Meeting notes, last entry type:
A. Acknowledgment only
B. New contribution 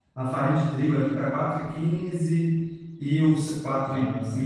A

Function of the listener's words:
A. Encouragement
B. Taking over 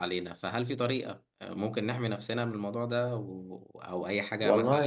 B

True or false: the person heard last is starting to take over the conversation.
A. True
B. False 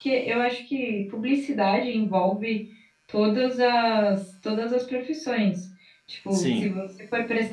B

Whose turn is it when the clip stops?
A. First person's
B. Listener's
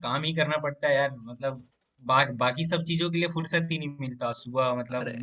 A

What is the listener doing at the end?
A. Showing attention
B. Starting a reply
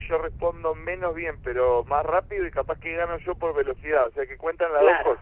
B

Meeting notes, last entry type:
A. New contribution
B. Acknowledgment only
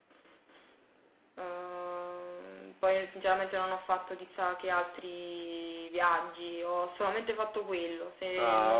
B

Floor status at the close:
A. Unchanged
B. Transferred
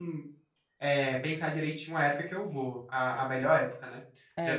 B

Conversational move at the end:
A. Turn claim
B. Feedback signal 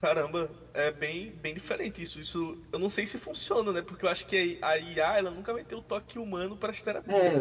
A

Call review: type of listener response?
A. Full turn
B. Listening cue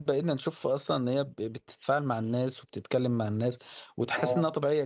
B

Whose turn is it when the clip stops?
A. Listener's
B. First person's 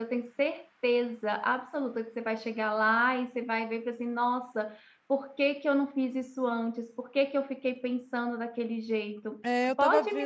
A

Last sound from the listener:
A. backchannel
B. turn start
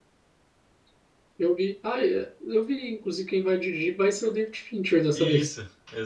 B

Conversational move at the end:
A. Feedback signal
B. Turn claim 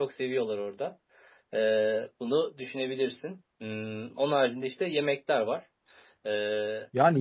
B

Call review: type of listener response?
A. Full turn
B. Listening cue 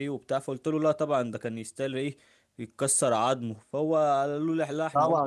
A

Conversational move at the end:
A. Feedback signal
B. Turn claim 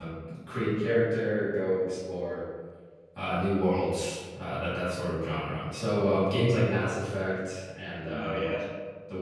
A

